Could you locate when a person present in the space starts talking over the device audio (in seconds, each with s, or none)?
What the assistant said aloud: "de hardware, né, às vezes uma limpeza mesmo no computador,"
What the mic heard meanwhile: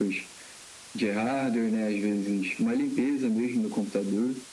none